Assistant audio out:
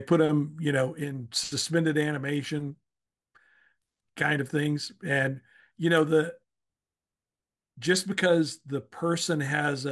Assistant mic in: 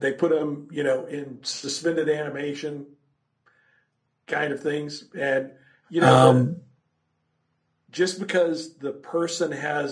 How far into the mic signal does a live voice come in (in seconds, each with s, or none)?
6.0 s